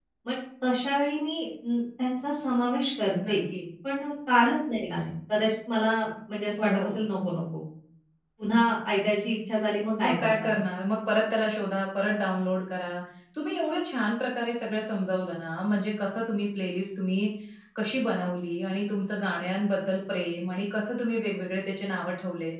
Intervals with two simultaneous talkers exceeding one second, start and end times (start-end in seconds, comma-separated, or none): none